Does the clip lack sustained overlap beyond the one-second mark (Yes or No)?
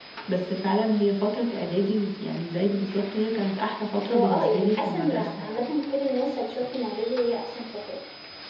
No